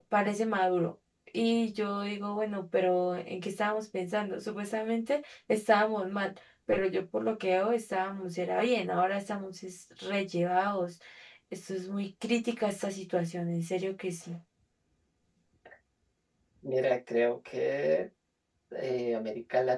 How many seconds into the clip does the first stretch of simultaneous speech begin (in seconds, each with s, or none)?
none